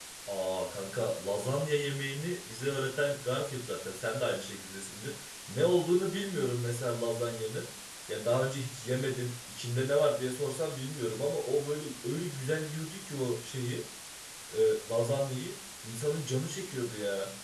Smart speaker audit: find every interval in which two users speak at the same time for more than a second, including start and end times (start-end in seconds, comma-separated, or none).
none